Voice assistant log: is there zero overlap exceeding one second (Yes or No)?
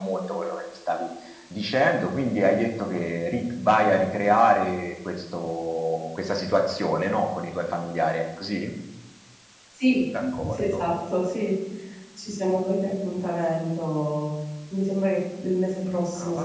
Yes